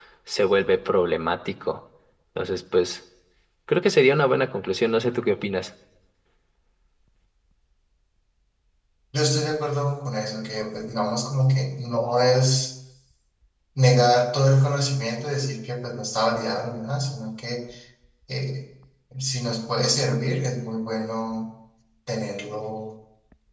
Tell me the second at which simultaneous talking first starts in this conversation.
none

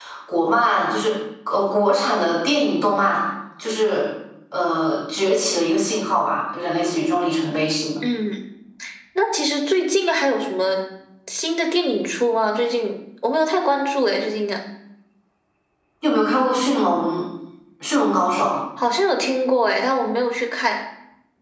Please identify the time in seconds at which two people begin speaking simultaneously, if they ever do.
none

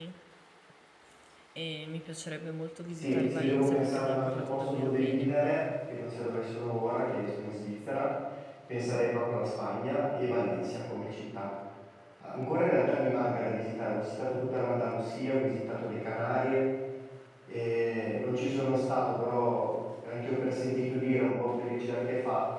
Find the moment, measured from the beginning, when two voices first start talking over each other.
3.0 s

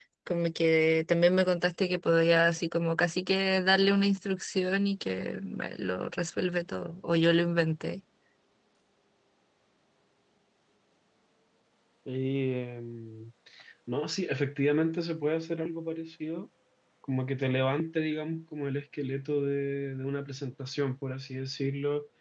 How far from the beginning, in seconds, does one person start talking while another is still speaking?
none

